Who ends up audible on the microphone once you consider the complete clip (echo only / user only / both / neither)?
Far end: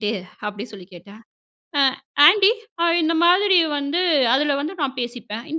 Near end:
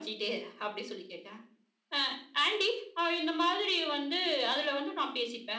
echo only